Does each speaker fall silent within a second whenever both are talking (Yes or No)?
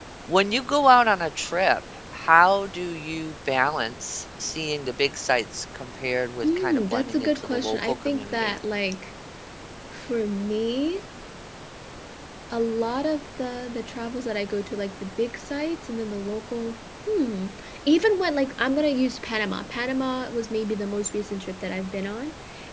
No